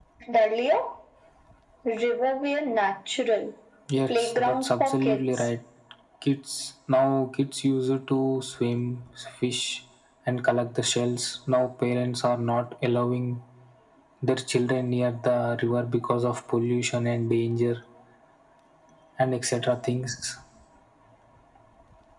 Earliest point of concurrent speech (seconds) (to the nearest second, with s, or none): 4 s